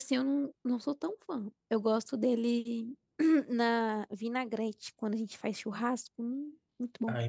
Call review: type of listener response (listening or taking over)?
taking over